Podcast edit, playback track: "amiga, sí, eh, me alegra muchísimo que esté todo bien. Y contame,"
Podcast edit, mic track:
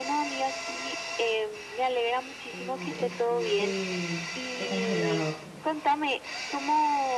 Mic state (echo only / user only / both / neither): both